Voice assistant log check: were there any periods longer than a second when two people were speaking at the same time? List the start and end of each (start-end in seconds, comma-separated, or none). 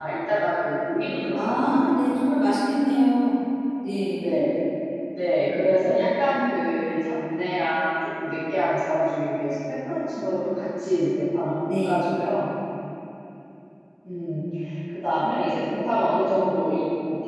none